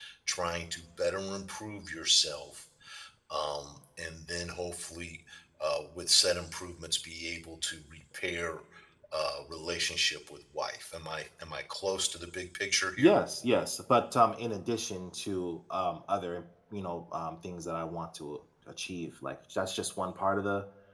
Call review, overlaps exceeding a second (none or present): none